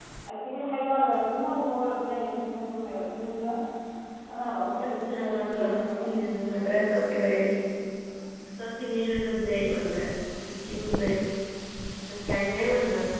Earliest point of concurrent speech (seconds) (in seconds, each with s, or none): 4.6 s